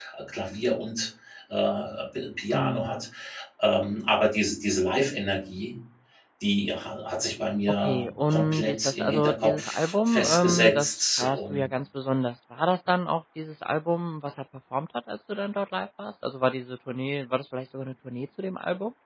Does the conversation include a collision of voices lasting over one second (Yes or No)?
Yes